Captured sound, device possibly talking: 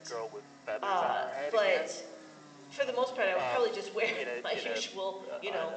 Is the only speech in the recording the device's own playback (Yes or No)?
No